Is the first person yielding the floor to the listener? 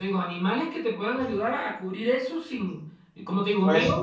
No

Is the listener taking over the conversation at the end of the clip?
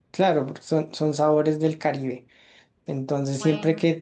No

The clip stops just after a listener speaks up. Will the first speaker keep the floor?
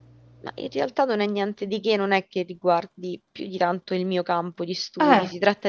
Yes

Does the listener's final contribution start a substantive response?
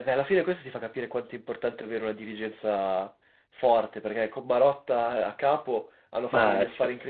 No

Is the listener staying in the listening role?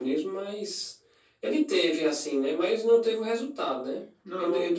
Yes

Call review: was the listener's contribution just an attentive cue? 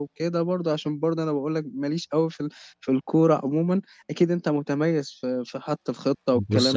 No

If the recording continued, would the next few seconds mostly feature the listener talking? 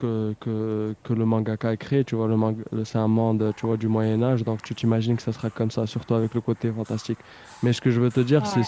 No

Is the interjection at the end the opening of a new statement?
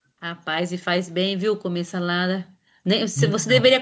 No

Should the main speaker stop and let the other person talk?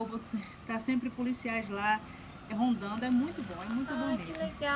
Yes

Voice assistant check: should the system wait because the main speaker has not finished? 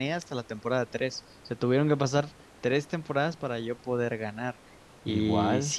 Yes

